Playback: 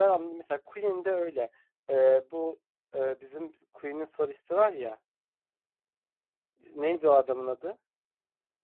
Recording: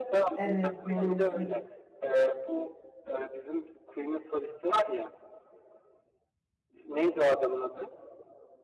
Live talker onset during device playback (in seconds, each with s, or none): 0.4 s